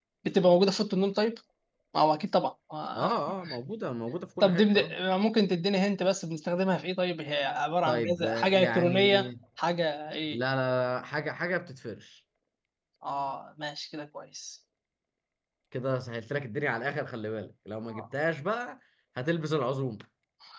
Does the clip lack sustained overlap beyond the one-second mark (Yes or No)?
No